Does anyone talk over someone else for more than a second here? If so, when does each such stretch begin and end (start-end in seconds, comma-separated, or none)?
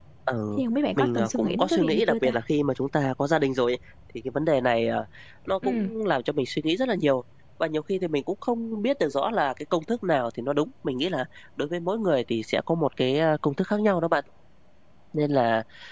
1.0-2.4